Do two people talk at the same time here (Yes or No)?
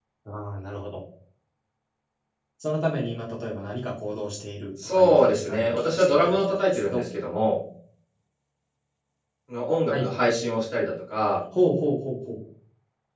Yes